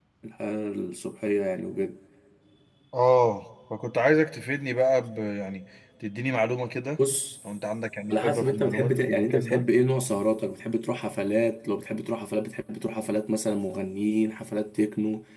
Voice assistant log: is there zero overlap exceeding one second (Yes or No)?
No